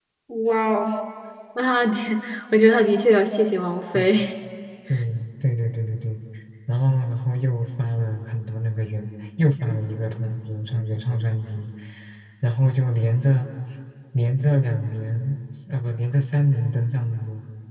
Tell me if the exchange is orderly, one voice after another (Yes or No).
Yes